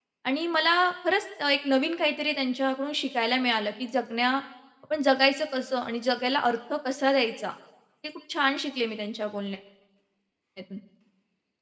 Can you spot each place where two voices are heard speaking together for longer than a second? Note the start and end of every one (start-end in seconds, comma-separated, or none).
none